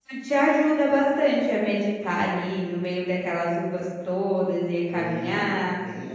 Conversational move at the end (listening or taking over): taking over